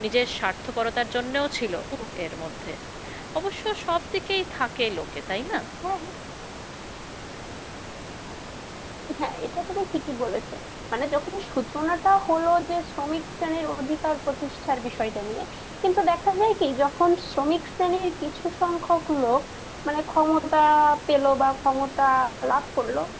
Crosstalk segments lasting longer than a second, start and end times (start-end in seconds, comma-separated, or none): none